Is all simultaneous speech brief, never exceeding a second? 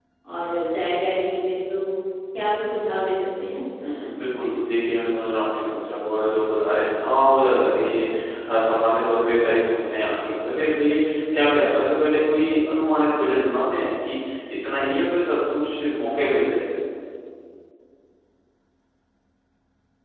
Yes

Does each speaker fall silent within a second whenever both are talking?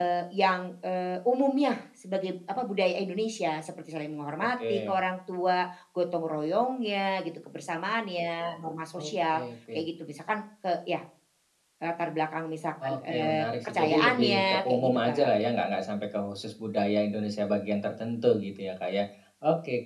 No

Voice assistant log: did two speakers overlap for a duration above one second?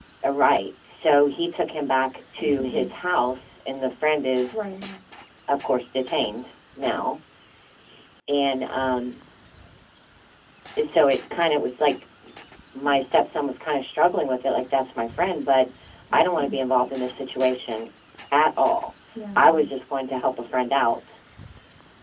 No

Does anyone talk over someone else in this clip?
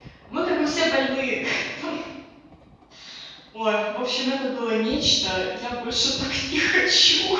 No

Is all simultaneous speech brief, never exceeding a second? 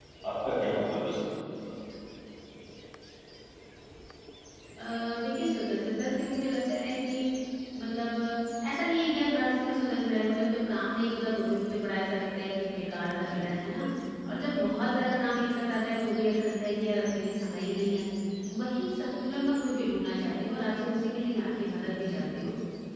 Yes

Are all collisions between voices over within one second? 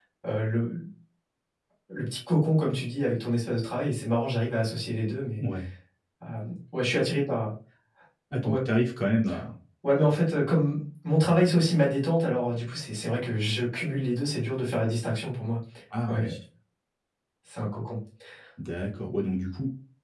Yes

